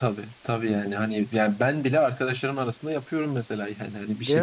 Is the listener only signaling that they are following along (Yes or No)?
Yes